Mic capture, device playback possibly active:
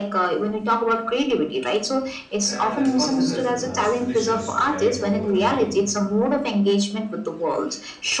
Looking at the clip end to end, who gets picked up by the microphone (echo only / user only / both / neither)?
both